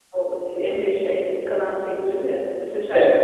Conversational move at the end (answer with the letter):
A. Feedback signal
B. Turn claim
A